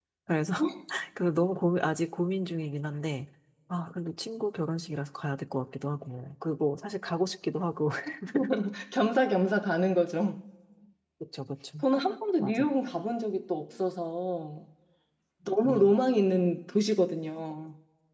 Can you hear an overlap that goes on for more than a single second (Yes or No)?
No